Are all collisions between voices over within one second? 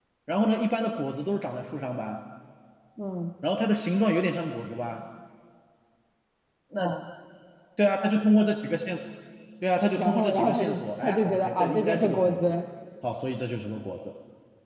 No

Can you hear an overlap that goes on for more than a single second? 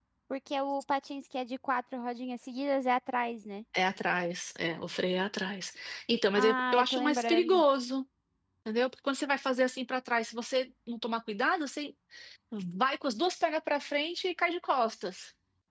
Yes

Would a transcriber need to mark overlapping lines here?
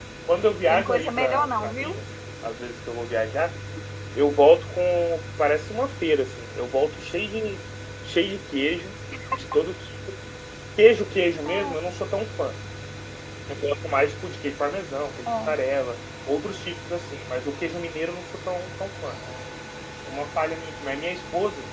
Yes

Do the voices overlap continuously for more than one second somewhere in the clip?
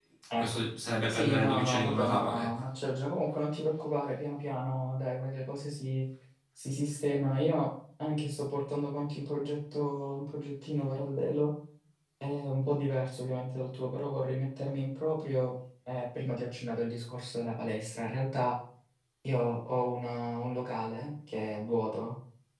Yes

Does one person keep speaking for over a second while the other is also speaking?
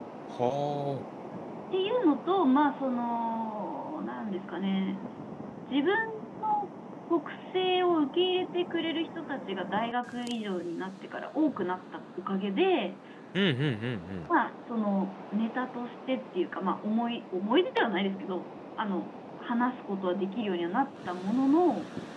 No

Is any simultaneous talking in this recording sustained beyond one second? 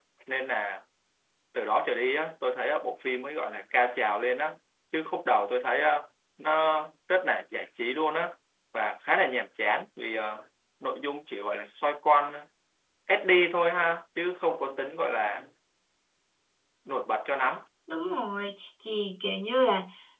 No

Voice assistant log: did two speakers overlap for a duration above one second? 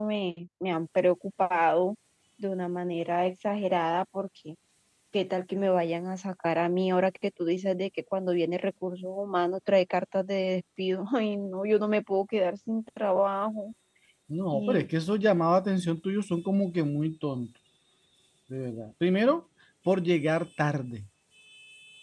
No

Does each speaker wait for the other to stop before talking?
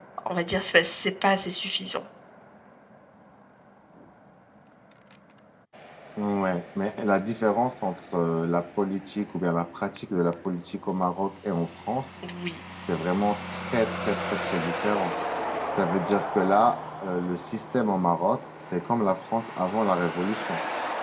Yes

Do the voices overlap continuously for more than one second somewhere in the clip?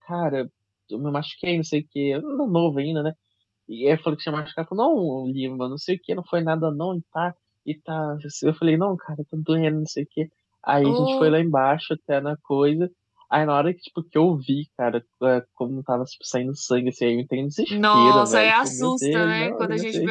Yes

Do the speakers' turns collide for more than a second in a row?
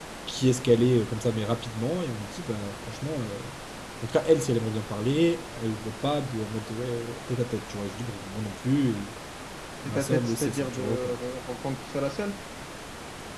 Yes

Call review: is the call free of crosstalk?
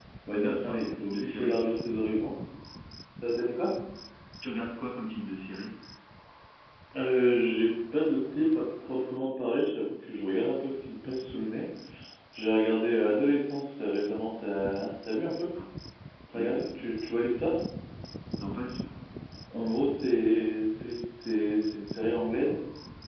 No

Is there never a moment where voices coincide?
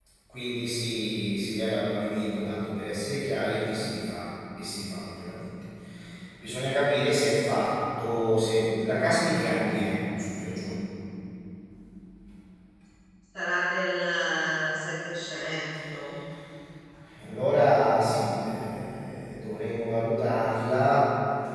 Yes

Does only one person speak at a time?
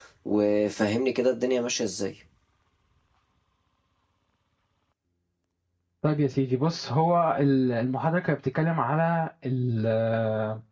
Yes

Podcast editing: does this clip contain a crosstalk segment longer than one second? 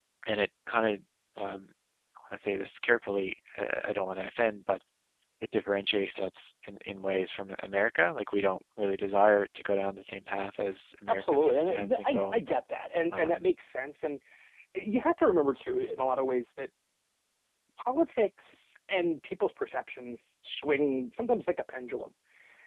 Yes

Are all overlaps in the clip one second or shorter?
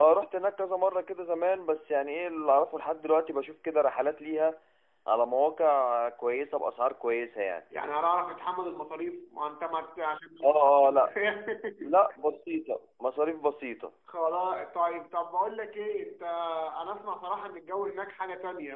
Yes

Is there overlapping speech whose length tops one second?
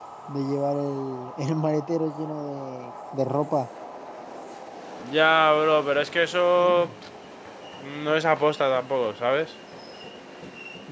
No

